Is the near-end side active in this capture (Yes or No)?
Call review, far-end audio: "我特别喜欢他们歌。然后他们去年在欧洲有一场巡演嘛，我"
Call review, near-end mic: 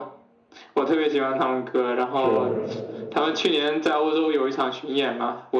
Yes